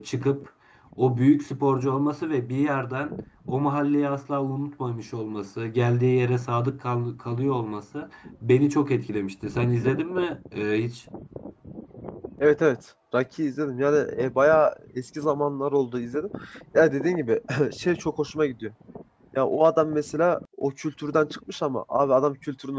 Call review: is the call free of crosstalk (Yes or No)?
Yes